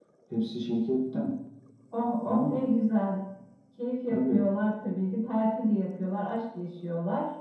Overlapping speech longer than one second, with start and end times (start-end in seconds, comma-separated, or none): none